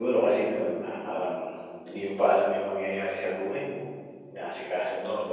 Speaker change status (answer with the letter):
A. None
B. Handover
A